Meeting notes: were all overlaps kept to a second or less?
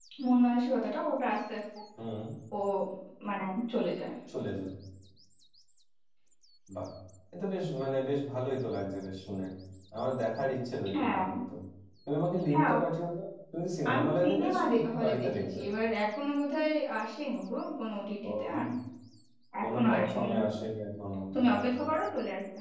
No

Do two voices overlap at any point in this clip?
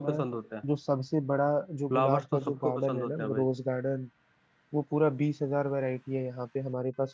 Yes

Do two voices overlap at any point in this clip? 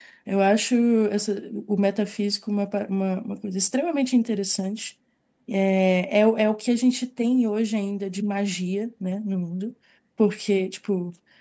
No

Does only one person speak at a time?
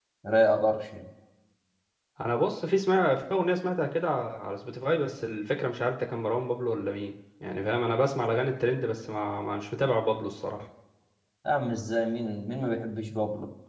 Yes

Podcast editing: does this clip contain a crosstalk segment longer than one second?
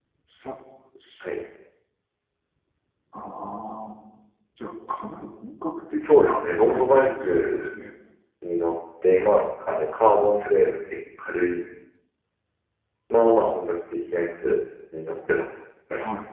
Yes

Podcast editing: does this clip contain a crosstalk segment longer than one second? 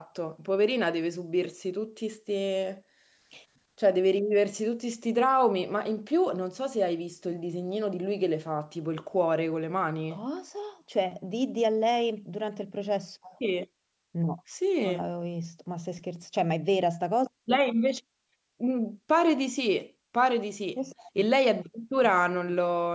No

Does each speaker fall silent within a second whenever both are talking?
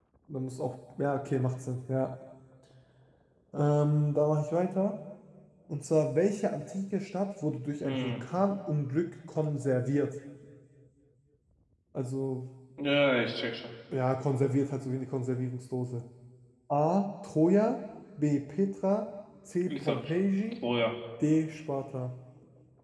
Yes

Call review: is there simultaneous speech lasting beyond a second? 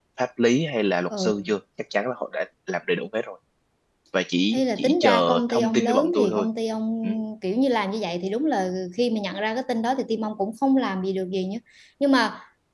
Yes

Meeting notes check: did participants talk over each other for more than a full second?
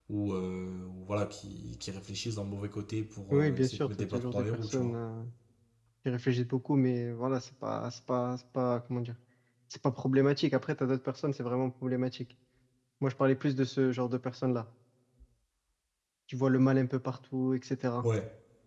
Yes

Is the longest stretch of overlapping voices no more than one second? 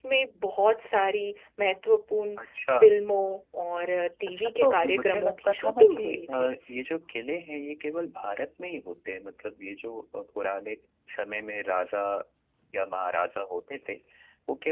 No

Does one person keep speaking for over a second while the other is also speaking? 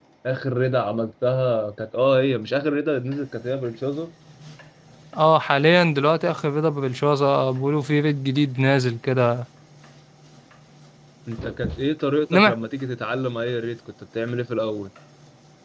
No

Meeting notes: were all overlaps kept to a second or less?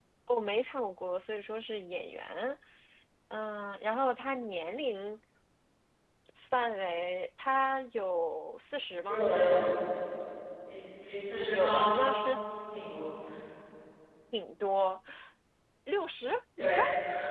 Yes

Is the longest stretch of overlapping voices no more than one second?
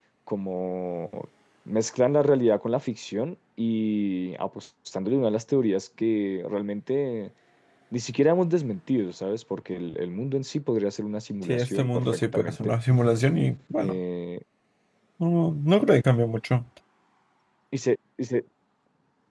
No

